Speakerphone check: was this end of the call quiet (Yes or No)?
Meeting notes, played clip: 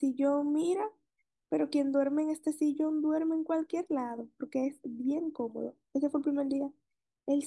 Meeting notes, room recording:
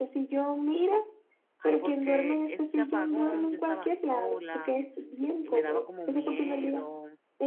No